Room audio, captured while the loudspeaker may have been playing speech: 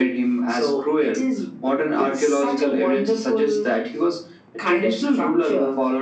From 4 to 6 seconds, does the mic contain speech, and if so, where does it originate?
echo only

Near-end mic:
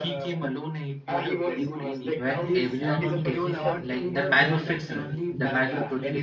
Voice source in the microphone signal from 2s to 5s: both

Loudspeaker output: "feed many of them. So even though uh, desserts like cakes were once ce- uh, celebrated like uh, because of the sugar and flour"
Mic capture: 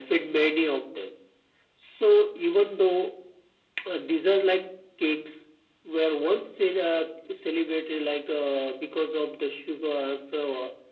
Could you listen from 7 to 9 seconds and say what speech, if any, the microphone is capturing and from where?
echo only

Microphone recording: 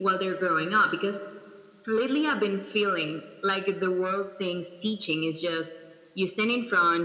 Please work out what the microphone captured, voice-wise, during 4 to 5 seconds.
echo only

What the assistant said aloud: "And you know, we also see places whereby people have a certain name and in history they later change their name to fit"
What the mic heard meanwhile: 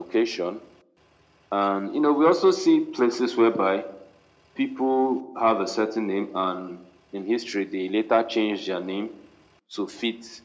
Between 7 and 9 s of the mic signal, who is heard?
echo only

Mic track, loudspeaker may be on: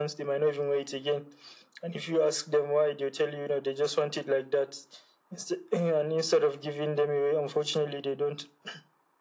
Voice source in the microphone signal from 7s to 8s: echo only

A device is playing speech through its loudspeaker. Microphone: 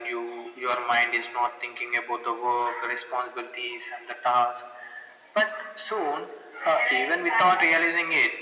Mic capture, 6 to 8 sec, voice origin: echo only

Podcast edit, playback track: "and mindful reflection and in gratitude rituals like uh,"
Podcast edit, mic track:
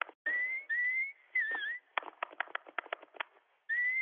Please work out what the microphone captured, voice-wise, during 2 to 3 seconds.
neither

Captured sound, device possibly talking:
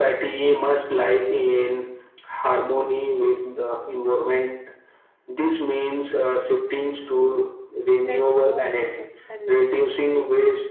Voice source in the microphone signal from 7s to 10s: both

